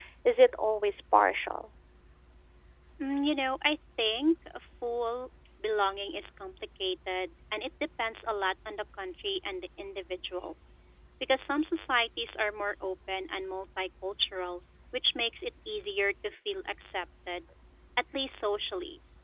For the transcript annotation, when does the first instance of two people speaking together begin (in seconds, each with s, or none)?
none